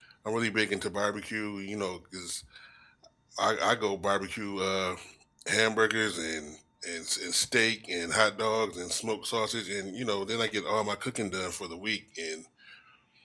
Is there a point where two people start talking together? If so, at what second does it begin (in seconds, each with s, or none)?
none